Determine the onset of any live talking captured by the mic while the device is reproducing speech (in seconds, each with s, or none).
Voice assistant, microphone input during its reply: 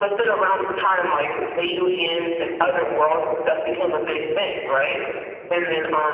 none